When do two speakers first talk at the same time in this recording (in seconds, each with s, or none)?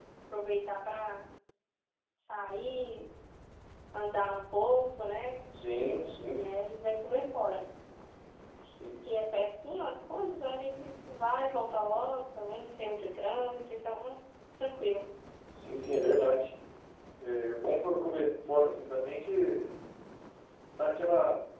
none